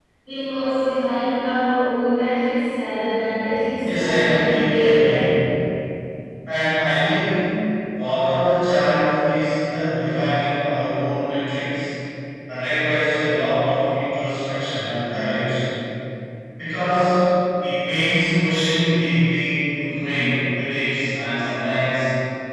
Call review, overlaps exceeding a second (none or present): present